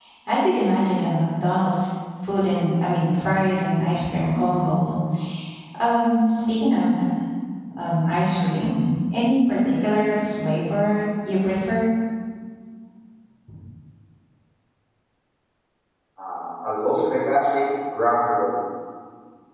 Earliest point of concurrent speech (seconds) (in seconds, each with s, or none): none